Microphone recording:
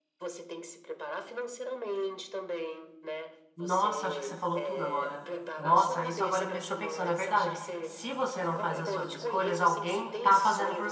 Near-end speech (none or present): present